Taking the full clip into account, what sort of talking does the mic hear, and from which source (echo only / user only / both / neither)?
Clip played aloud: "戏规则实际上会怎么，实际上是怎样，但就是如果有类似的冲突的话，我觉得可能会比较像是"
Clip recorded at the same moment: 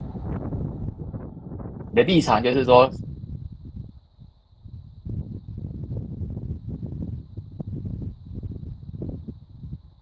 user only